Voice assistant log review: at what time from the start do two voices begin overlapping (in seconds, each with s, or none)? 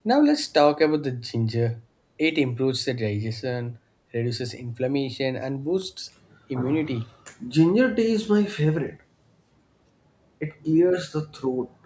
none